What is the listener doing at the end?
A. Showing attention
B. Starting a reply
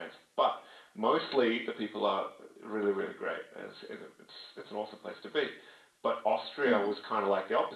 A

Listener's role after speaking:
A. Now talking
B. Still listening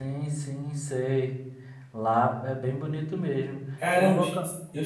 A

